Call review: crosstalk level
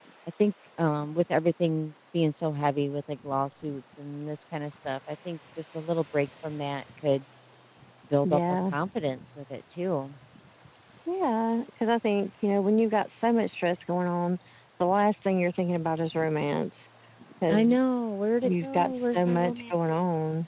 present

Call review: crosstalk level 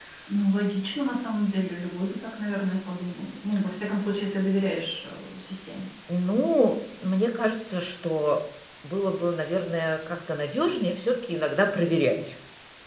none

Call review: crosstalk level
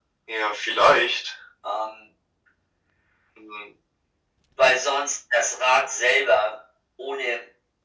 none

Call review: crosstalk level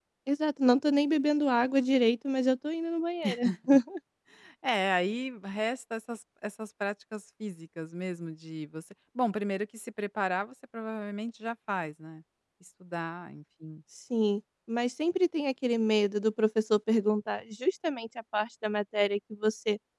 none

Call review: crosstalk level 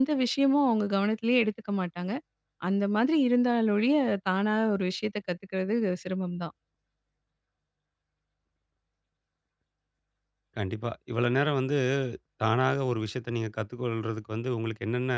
none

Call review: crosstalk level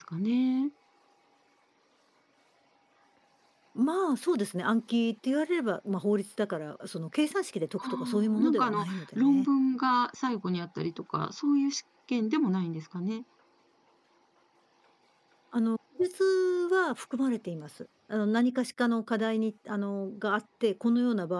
present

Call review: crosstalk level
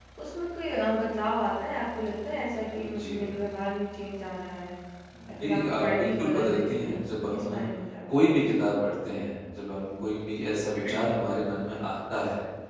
present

